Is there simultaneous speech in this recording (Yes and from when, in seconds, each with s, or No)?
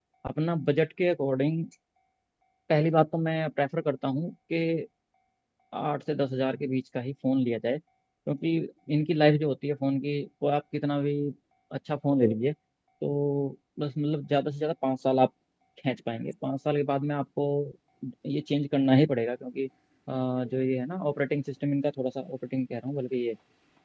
No